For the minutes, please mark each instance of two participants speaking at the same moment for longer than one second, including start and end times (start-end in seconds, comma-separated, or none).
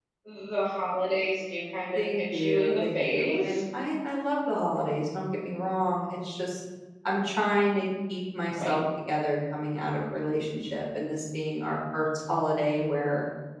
1.9-3.6